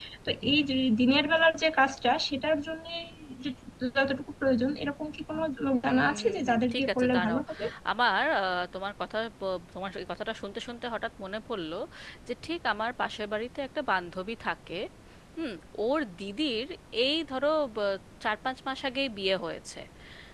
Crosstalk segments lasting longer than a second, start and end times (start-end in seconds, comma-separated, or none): 5.9-7.4